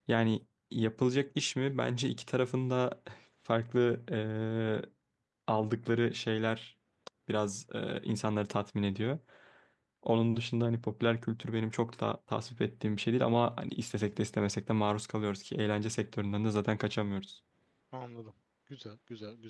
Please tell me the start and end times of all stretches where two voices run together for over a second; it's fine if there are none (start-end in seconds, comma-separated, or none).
none